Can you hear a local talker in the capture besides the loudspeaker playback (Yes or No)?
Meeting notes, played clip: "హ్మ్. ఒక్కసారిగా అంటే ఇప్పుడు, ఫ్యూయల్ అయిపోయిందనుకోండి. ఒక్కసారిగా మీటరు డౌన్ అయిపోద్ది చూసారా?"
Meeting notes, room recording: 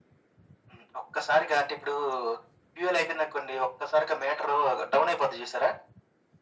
No